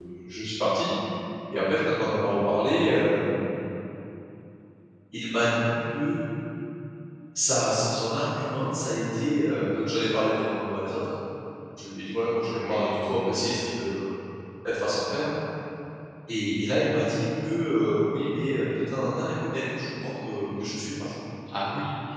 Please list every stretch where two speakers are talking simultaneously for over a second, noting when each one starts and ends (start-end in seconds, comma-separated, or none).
12.7-13.9